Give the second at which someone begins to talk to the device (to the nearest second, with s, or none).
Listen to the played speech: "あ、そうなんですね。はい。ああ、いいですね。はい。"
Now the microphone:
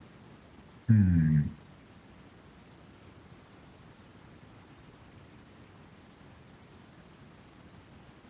1 s